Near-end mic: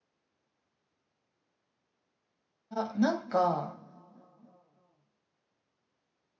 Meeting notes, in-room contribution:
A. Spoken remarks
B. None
A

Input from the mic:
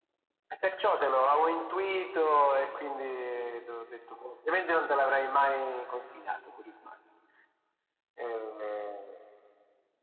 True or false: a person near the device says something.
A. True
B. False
B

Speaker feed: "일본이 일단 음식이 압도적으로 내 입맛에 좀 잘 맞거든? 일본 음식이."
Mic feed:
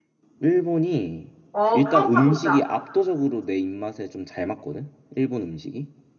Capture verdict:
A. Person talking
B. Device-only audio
A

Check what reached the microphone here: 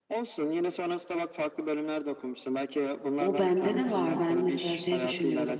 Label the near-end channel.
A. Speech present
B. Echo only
A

